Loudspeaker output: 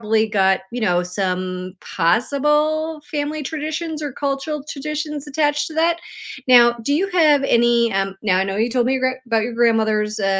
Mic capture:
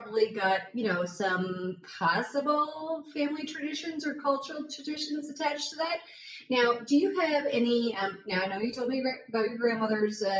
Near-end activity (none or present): none